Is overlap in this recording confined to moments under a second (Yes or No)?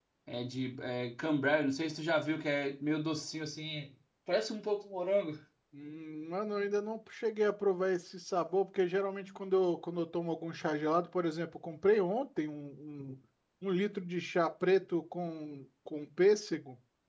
Yes